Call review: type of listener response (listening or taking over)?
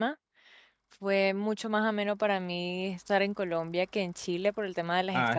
taking over